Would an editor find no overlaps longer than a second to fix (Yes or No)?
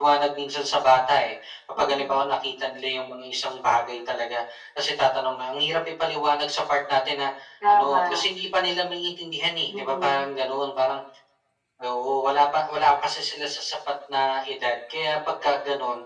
Yes